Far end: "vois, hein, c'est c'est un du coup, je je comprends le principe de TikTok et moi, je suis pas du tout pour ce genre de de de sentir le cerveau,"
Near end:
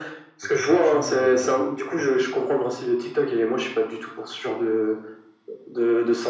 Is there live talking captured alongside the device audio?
Yes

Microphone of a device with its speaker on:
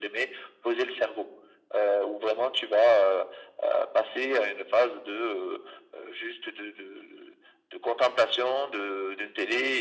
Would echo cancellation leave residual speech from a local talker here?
No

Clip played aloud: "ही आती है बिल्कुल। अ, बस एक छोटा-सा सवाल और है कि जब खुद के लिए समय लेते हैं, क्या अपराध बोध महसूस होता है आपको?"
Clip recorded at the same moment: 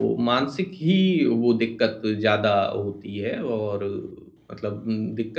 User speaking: Yes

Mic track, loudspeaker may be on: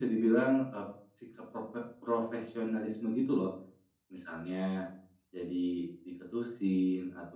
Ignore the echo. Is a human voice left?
No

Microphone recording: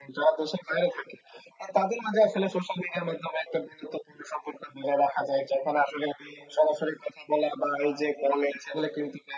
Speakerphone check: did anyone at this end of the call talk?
No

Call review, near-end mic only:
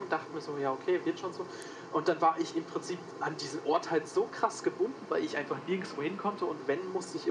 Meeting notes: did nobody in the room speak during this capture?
Yes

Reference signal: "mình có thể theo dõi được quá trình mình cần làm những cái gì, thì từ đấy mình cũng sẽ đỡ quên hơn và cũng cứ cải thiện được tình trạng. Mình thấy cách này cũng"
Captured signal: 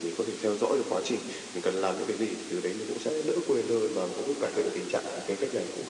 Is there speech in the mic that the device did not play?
No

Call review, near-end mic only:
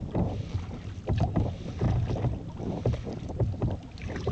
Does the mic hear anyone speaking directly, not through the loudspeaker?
No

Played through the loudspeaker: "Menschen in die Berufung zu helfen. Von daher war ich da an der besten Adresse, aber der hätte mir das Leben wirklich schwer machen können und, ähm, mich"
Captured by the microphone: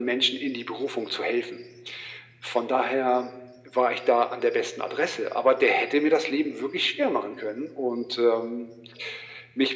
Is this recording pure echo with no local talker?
Yes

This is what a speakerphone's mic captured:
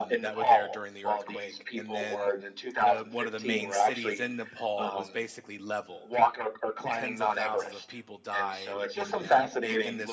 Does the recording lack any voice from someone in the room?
No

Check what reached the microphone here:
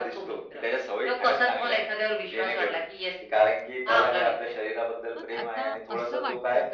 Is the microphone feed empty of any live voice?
No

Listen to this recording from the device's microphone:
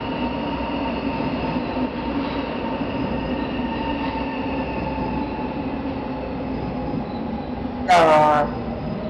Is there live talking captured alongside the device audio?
Yes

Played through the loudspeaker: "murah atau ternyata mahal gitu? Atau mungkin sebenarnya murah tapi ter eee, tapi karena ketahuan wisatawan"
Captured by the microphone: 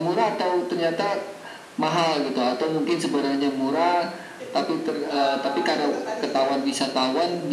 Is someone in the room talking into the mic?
Yes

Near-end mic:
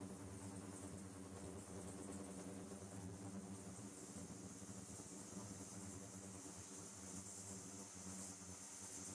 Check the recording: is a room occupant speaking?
No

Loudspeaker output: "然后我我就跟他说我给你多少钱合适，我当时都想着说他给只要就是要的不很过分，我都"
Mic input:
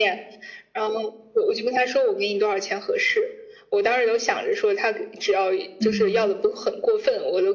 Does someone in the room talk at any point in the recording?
Yes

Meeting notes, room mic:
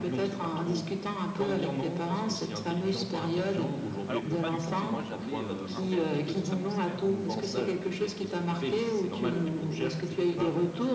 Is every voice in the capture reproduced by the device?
No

